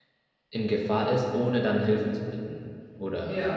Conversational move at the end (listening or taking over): listening